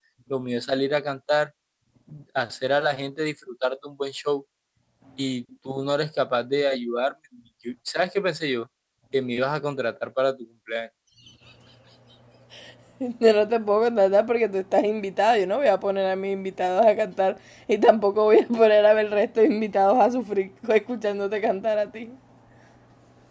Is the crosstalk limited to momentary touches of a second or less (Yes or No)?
Yes